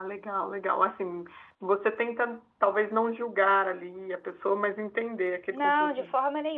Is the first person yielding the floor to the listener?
Yes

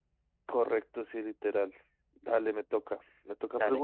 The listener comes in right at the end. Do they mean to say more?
No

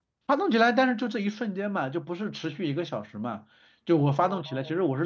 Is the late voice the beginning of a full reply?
No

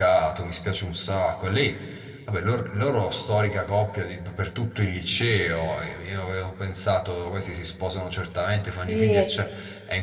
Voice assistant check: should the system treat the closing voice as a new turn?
No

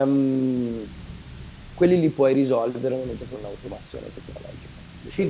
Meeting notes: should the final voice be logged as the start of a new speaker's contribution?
Yes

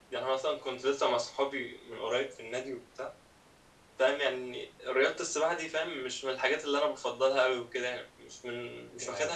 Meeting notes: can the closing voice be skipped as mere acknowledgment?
Yes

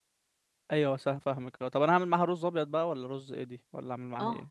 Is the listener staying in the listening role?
No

